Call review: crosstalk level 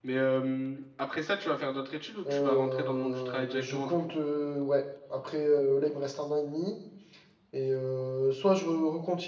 present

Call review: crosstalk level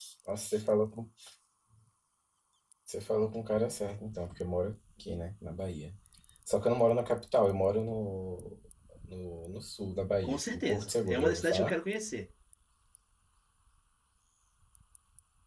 present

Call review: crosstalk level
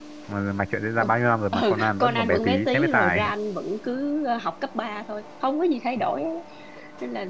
present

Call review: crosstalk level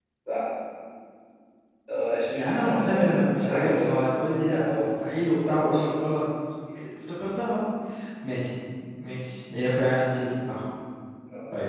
present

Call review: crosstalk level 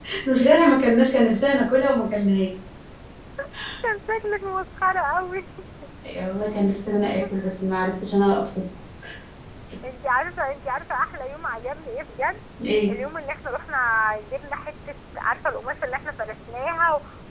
none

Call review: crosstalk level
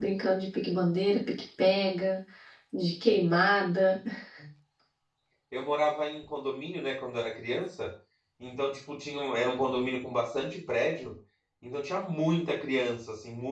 none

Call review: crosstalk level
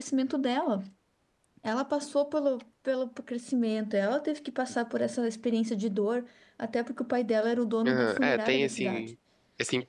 present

